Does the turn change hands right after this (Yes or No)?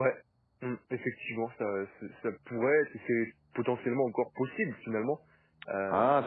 Yes